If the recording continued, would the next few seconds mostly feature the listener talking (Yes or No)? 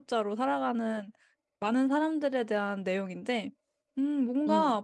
No